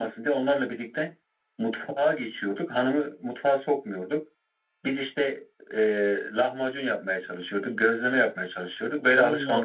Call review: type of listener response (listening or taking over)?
taking over